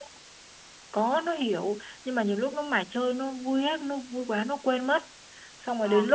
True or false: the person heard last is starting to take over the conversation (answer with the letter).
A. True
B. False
B